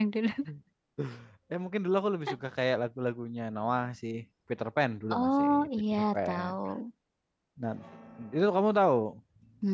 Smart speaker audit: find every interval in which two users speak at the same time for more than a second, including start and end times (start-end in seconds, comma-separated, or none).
5.1-6.5